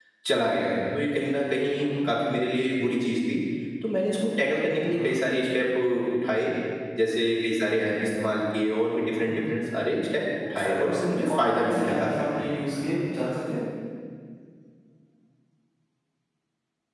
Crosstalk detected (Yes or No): Yes